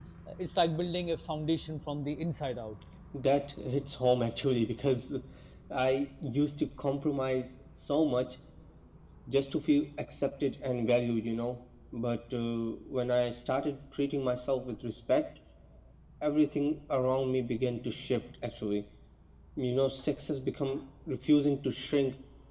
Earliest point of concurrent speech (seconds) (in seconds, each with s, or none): none